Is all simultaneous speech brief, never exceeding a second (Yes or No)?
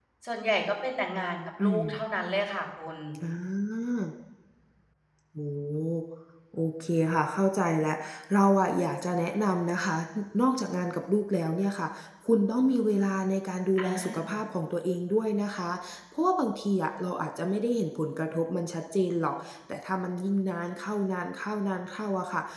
Yes